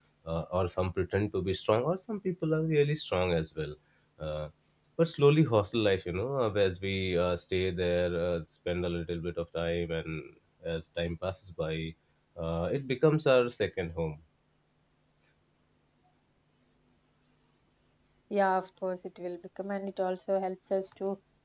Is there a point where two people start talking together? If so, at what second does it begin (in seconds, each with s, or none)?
none